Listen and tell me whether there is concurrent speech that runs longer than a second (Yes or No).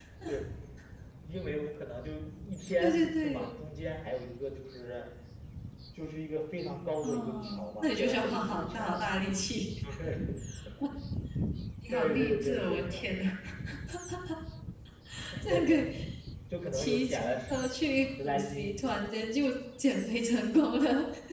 Yes